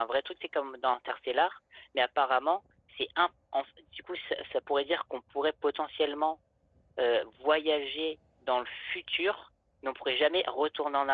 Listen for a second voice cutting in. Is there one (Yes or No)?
No